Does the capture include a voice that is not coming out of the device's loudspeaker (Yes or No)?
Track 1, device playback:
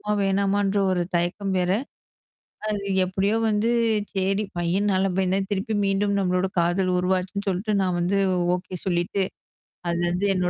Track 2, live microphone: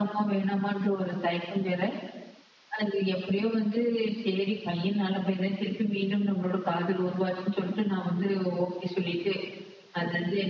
No